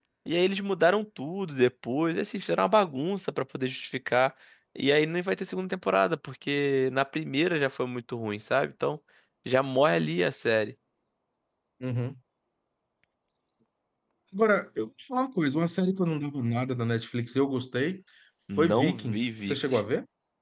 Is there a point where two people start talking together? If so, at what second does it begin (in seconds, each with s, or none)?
18.6 s